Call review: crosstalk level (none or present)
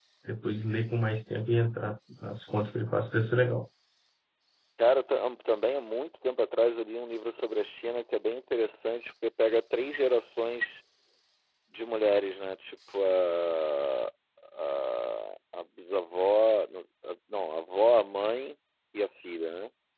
none